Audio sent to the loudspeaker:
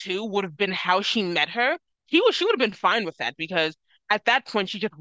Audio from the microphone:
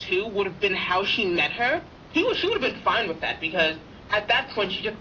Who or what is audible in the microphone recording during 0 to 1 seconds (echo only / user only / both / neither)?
echo only